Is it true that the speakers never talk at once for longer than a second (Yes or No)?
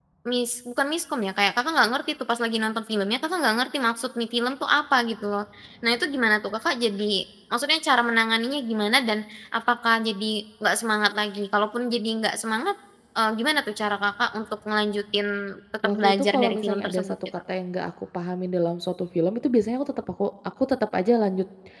No